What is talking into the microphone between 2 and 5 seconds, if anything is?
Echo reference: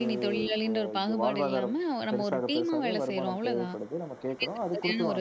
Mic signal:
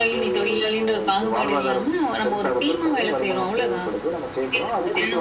echo only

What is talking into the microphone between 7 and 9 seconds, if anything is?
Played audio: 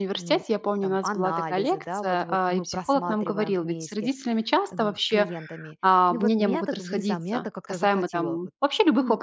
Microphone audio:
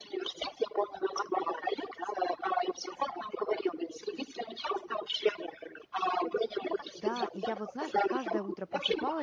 both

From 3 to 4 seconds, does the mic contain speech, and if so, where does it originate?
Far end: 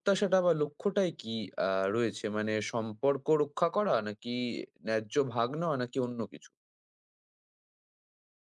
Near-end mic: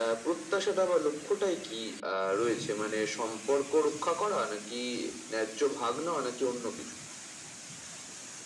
echo only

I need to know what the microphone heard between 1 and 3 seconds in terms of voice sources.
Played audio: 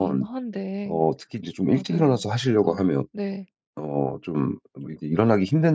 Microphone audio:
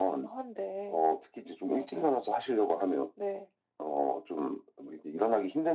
echo only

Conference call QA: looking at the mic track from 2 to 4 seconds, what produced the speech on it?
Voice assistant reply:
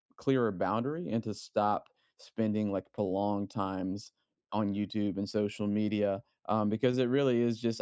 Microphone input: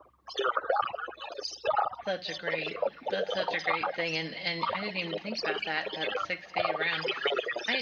both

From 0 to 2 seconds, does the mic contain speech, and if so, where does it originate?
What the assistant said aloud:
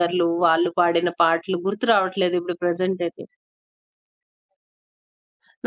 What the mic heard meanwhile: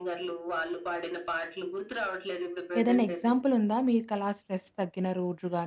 echo only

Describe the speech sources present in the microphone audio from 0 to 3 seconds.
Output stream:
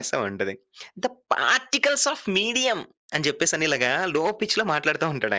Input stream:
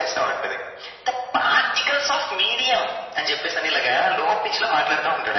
echo only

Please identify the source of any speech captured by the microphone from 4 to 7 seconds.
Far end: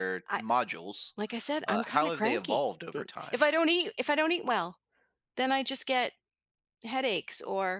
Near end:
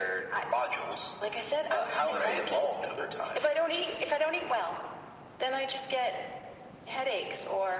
echo only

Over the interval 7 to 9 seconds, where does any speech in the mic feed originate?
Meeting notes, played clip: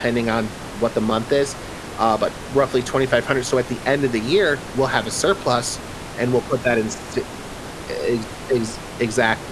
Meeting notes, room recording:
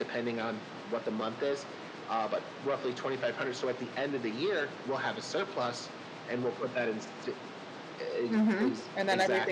both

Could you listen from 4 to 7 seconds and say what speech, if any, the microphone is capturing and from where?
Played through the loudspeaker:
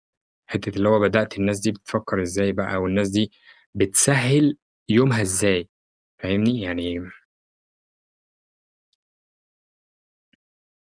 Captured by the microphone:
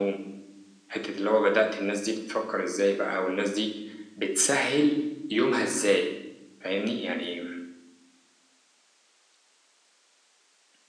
echo only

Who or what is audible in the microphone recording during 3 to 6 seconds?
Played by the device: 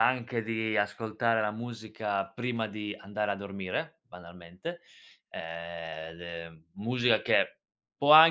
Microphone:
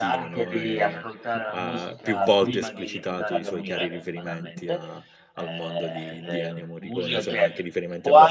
both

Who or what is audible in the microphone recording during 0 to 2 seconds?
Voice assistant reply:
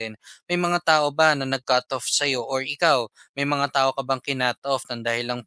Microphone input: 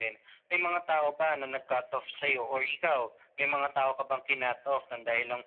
echo only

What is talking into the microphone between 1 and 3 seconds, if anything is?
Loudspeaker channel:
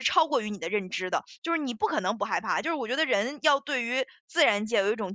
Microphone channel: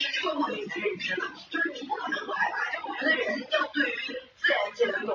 echo only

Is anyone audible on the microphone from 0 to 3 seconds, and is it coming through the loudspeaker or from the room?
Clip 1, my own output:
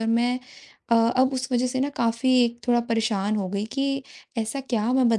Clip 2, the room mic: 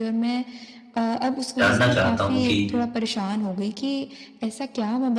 both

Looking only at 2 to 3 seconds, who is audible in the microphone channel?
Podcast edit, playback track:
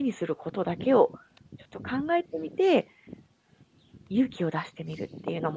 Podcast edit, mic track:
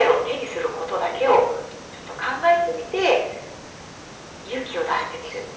echo only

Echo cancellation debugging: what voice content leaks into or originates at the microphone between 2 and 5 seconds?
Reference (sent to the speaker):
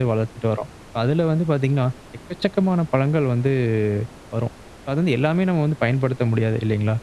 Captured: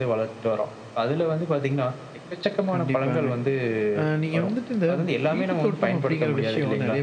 both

